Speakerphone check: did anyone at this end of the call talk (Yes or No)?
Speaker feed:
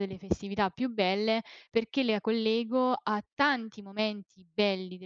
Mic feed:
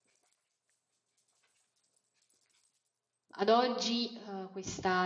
Yes